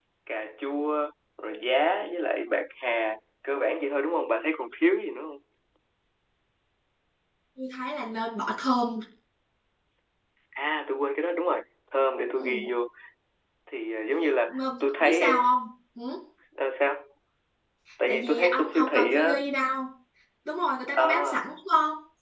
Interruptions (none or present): present